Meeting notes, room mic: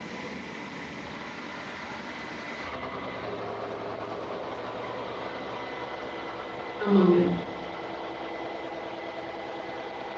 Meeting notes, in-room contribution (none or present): present